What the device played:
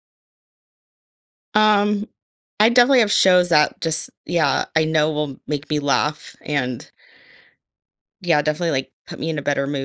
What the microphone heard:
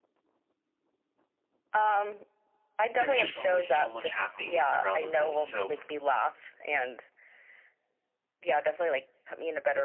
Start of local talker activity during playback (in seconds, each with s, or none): 3.0 s